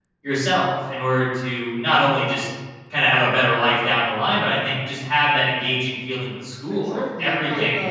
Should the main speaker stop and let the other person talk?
Yes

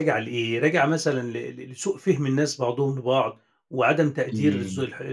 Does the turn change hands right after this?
No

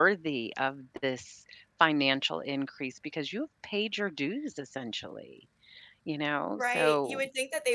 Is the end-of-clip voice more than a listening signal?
Yes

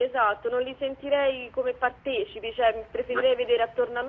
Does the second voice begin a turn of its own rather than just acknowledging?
No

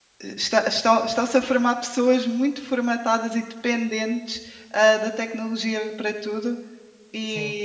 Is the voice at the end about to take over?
No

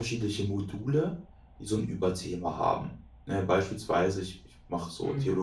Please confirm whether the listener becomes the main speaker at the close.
No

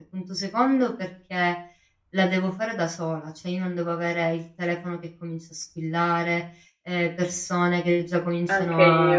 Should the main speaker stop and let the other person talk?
No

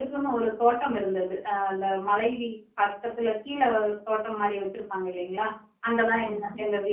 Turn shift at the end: No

